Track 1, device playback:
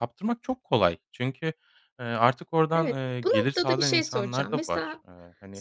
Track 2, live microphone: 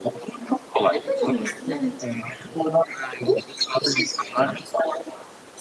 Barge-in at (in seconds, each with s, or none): 0.9 s